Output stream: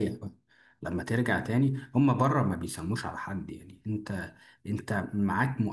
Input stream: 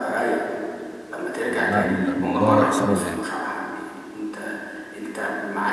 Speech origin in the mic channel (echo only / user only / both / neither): both